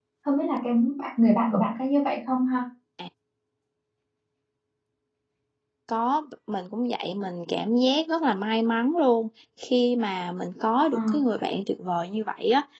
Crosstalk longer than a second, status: none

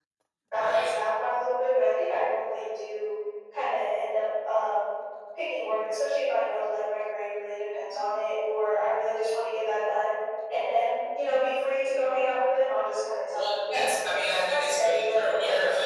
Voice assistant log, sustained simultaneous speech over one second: present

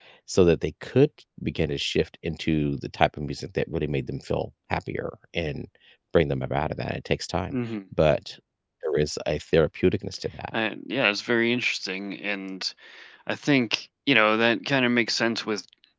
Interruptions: none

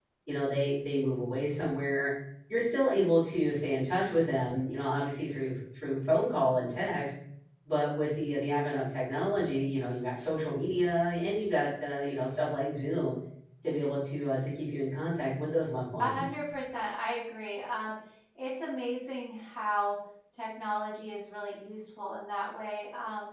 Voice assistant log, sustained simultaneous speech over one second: none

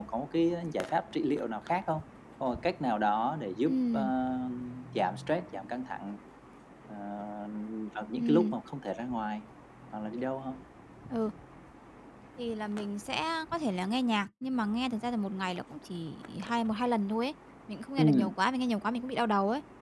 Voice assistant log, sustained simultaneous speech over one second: none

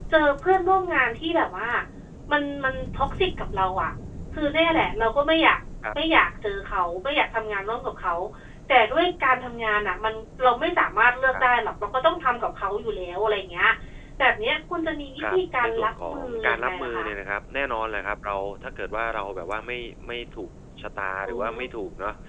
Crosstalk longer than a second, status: present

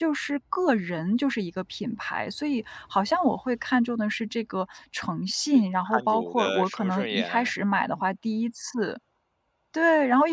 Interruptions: present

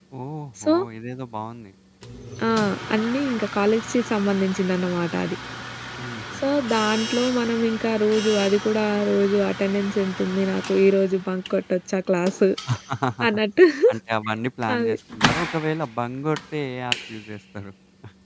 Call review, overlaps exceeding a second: none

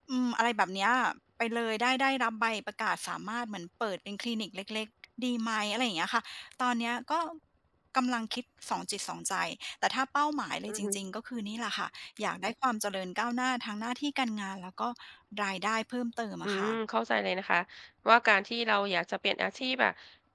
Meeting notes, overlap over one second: none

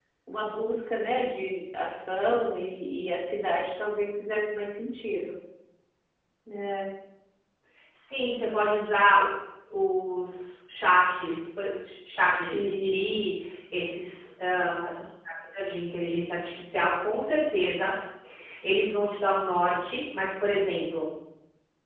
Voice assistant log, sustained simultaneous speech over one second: none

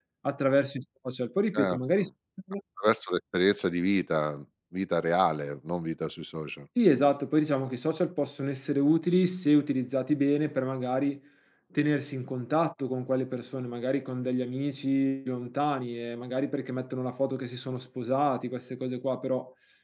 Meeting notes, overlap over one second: none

